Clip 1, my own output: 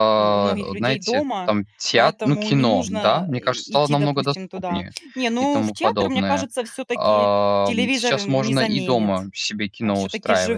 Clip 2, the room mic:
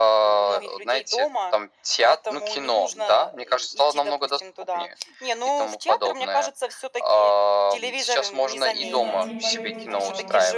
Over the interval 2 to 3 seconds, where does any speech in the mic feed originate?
echo only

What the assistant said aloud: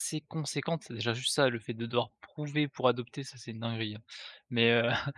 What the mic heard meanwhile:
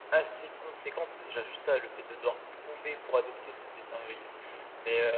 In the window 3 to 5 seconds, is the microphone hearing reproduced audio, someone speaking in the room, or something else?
echo only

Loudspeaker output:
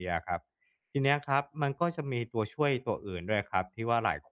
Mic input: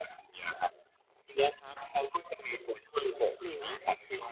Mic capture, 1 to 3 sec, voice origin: echo only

